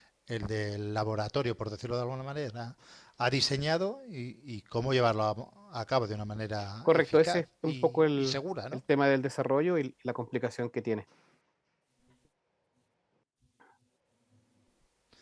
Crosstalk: present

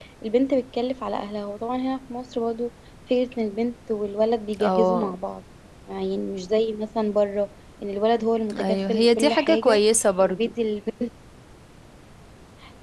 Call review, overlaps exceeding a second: present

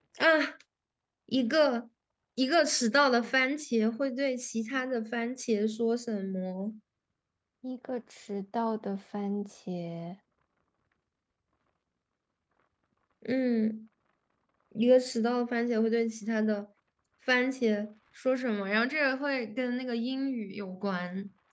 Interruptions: none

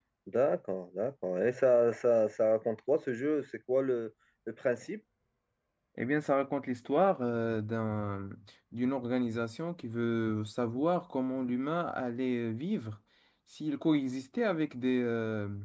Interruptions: none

